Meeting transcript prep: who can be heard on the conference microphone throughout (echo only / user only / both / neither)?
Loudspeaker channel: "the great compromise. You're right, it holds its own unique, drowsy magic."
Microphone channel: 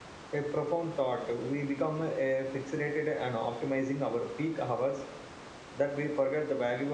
user only